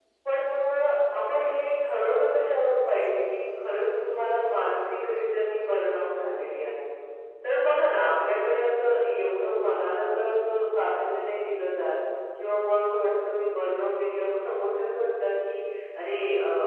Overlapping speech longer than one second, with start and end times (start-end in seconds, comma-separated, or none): none